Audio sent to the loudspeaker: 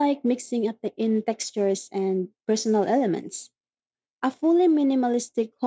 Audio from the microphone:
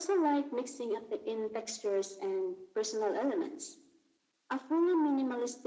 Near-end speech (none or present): none